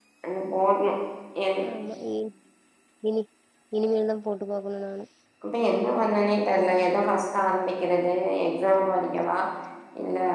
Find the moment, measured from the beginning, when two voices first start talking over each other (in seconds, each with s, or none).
none